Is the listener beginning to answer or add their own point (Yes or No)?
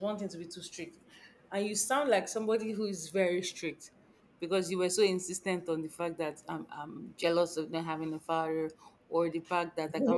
No